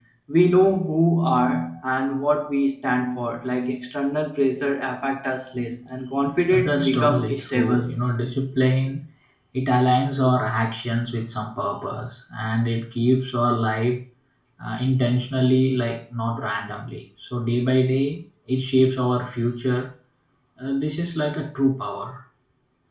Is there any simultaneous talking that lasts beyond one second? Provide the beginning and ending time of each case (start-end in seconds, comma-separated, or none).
6.5-7.8